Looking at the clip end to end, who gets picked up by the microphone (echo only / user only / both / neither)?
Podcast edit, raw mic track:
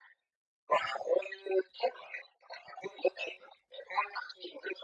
echo only